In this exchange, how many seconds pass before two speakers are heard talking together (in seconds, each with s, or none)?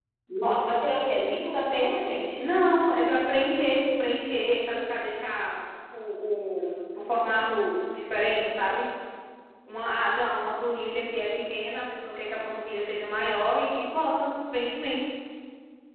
none